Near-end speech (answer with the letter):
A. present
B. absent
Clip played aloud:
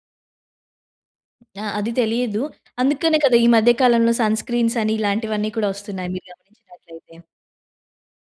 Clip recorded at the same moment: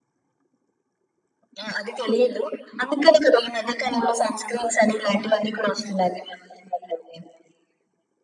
B